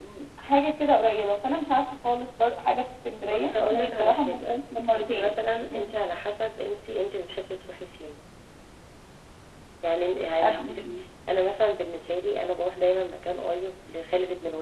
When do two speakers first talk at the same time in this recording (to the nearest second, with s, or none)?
3 s